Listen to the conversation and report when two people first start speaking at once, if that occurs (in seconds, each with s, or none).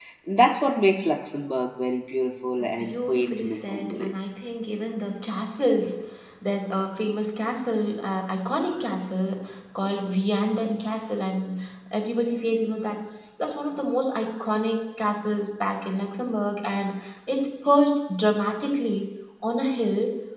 2.6 s